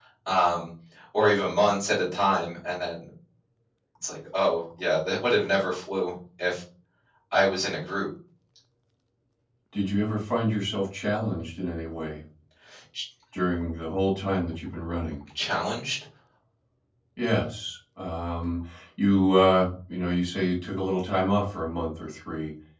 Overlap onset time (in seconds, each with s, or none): none